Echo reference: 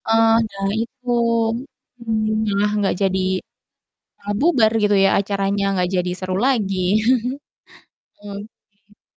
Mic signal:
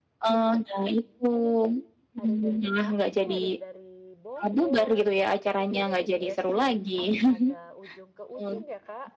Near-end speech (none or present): present